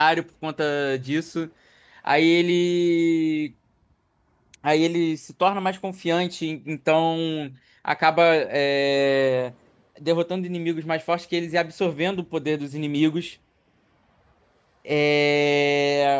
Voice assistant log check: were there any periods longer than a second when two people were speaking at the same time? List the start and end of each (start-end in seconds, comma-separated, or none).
none